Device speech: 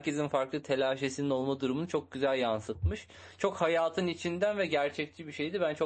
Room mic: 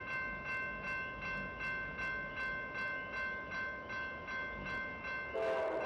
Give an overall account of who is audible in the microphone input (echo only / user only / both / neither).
neither